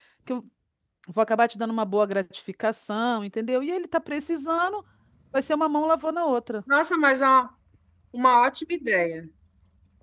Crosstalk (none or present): none